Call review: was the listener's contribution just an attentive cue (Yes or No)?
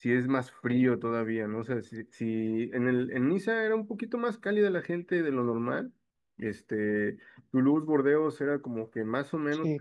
No